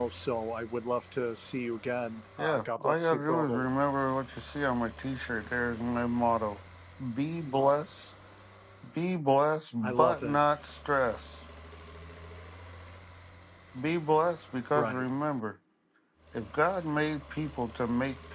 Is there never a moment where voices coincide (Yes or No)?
No